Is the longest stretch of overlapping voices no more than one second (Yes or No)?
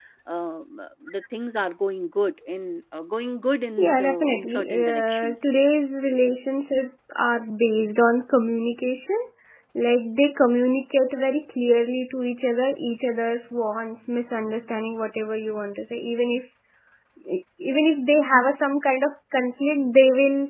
No